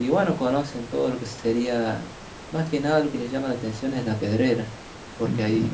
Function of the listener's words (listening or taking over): listening